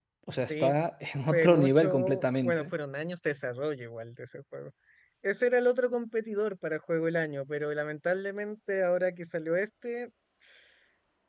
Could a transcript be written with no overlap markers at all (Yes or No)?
No